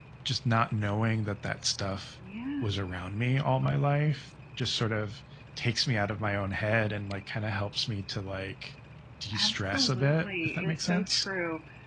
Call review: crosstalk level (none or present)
present